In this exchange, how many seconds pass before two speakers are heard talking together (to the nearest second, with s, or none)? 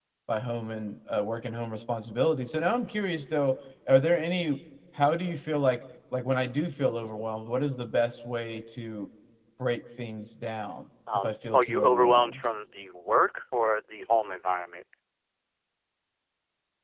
11 s